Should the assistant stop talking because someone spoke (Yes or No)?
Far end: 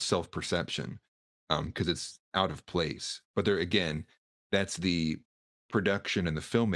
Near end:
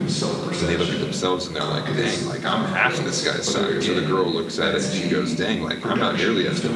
Yes